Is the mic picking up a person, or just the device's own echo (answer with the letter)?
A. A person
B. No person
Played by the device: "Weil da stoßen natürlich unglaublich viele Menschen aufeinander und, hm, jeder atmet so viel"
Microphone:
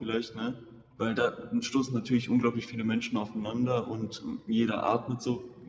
B